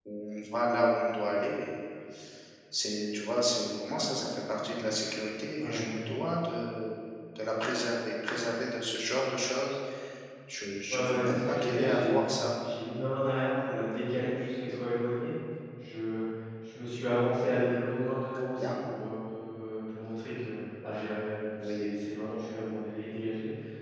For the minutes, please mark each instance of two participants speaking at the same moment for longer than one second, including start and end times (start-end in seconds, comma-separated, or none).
10.9-12.2